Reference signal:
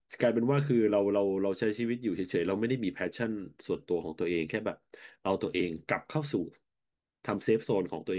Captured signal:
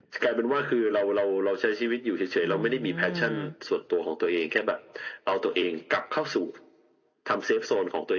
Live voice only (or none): อืม